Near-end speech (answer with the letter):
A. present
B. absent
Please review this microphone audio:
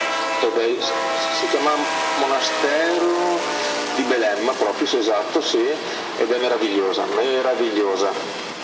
B